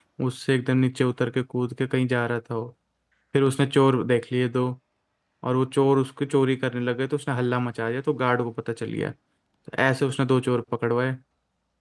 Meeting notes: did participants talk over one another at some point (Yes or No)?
No